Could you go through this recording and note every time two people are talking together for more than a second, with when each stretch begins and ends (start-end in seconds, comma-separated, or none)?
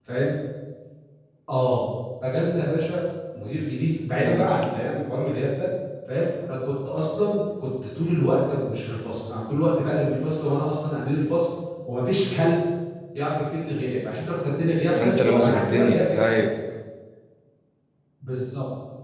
15.0-16.4